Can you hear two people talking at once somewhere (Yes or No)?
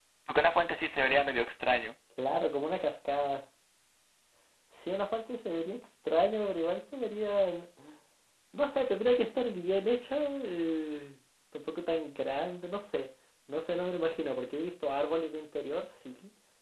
No